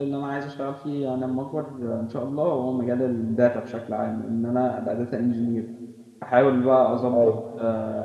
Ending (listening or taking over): listening